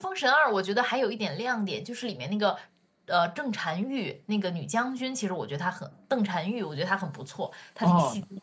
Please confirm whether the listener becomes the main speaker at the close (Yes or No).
Yes